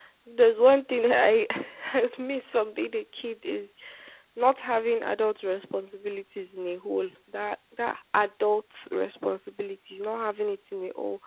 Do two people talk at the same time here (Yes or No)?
No